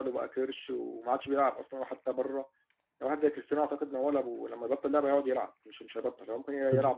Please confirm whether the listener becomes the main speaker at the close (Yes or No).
No